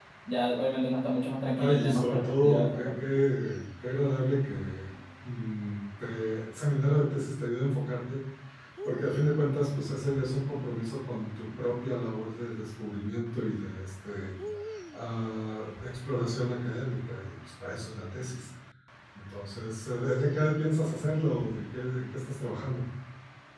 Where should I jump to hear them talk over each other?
1.6 s

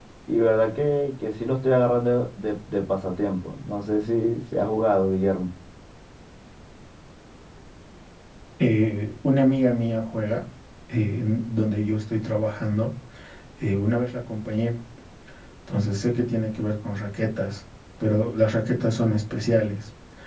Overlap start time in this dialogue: none

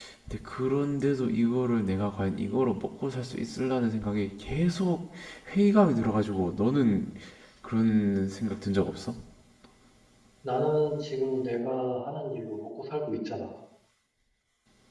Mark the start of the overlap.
none

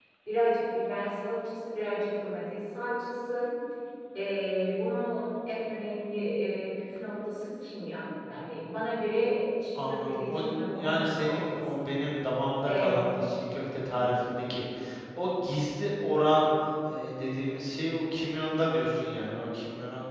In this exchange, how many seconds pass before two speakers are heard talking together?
9.9 s

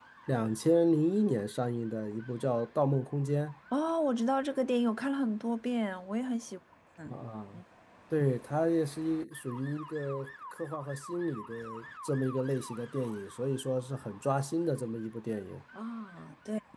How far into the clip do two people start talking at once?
none

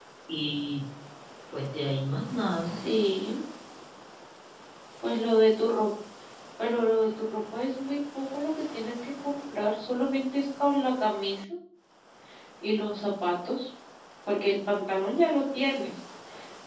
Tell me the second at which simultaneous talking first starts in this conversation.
none

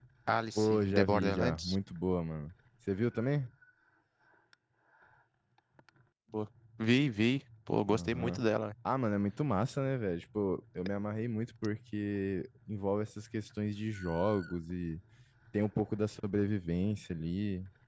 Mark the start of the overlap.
0.6 s

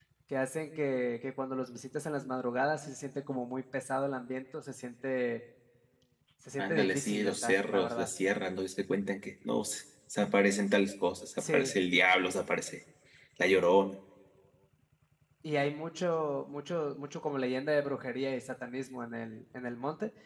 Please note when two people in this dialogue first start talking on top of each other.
6.6 s

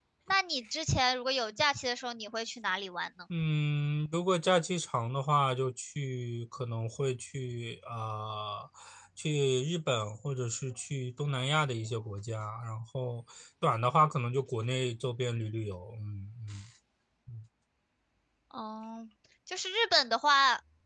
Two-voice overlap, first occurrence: none

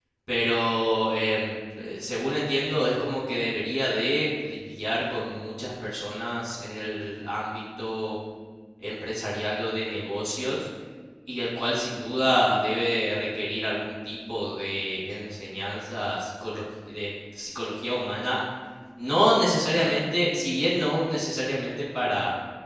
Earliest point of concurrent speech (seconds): none

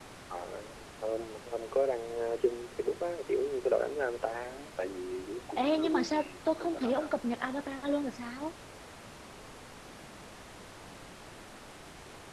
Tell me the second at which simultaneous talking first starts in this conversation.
5.6 s

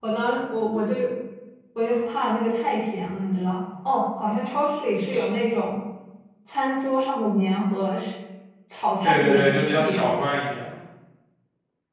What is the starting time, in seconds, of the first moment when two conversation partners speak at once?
9.0 s

